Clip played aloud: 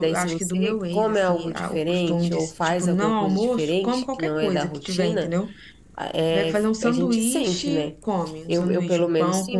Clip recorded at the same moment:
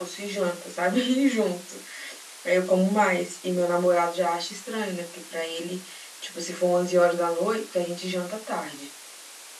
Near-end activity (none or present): present